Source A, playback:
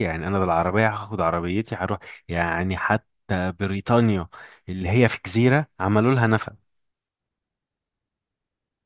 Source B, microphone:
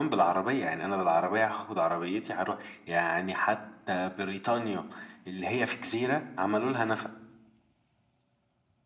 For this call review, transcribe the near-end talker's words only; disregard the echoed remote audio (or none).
none